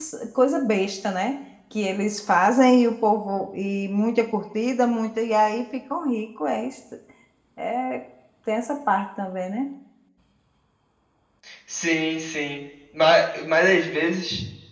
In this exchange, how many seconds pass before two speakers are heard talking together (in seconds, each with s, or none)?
none